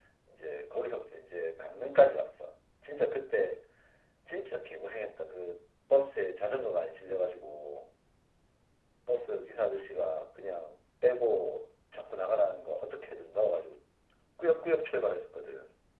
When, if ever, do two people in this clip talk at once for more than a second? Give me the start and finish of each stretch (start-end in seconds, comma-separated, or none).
none